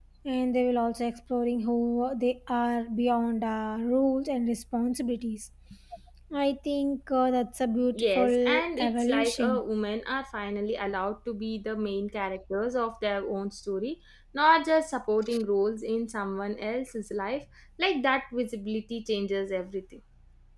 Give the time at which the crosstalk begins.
7.9 s

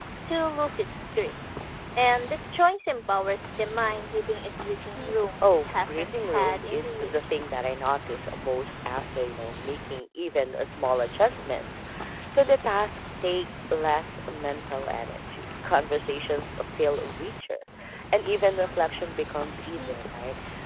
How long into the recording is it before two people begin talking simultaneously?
5.4 s

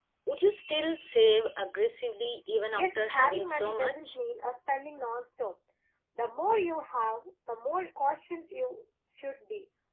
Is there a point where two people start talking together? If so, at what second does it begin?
2.7 s

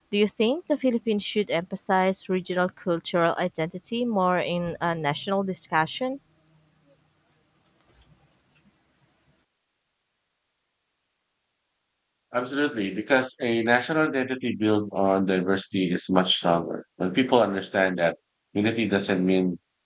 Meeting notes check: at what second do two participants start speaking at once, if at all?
none

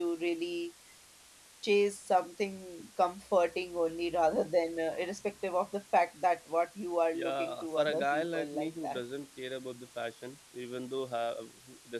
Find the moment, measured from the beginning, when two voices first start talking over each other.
7.1 s

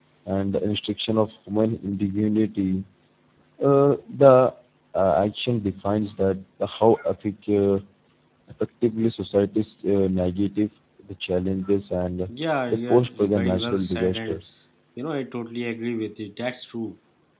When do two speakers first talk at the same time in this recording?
12.7 s

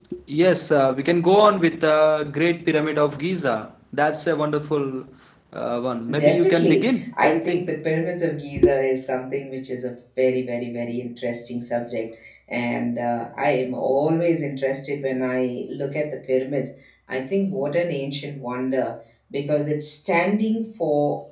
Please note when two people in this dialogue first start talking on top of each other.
6.2 s

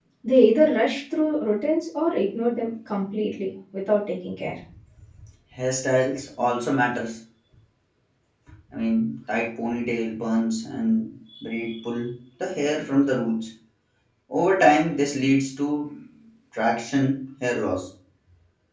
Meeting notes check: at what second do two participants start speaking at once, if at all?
none

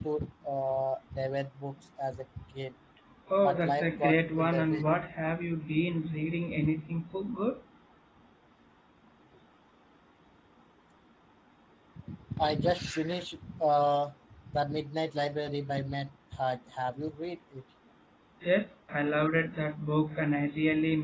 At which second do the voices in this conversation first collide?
3.4 s

